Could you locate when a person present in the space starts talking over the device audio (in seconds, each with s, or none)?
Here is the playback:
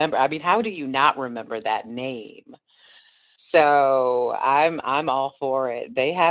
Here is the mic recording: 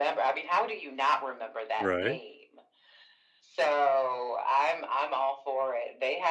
1.8 s